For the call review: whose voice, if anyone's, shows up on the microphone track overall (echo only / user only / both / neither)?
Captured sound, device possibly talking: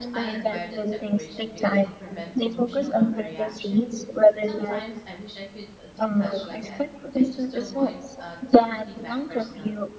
both